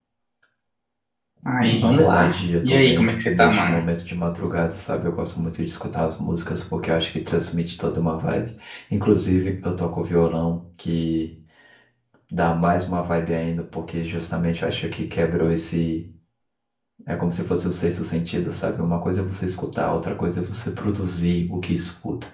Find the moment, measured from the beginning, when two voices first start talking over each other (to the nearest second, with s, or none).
2 s